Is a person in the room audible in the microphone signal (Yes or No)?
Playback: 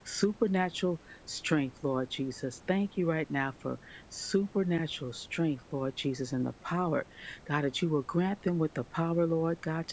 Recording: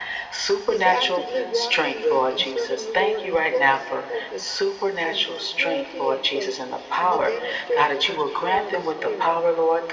Yes